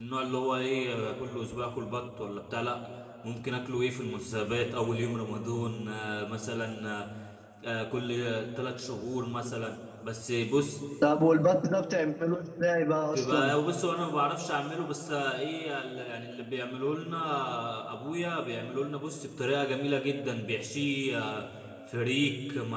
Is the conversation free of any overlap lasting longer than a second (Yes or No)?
Yes